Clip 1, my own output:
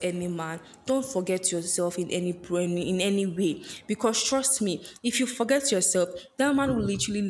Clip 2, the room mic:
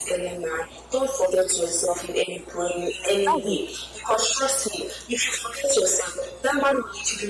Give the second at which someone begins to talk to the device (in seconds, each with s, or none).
3.0 s